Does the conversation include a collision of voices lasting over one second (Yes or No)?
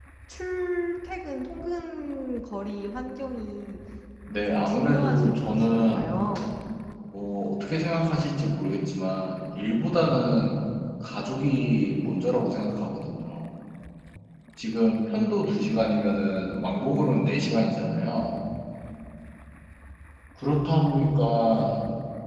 Yes